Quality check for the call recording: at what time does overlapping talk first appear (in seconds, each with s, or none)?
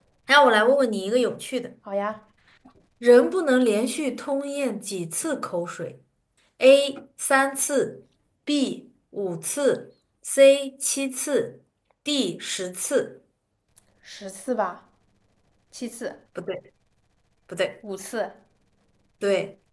none